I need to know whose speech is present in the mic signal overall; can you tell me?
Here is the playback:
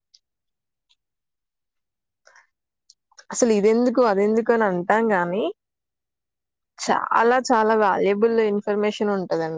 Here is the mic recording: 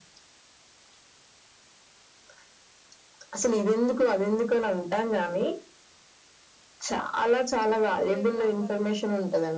both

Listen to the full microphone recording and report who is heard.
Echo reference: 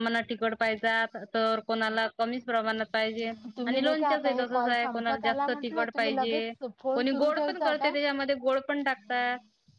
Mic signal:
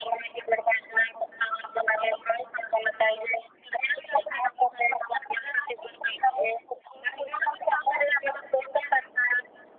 echo only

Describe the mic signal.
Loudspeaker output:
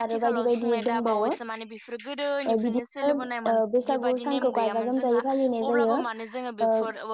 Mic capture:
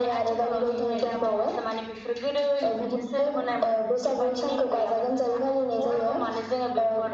echo only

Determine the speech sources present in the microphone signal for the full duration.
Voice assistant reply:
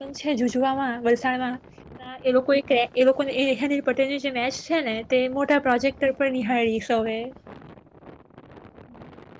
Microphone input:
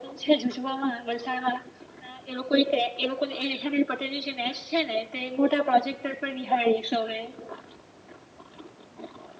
echo only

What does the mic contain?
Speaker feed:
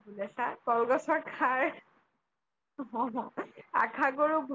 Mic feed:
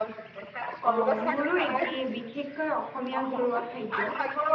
both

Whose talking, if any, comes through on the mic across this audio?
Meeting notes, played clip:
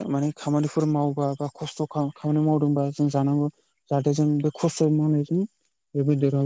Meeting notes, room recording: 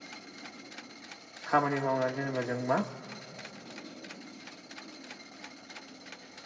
user only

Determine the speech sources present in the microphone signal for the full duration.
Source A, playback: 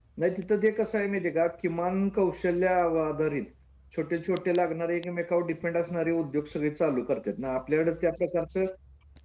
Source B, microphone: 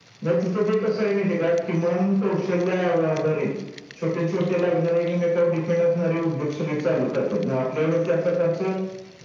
echo only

